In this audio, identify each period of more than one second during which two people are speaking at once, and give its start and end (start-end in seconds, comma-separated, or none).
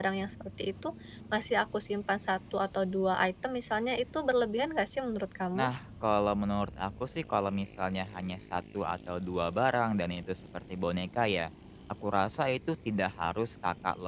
none